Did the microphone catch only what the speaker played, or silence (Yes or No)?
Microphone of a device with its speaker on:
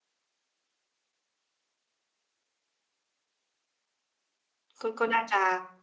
No